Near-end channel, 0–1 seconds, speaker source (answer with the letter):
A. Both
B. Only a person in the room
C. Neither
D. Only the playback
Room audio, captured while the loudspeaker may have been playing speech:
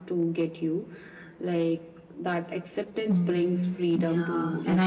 D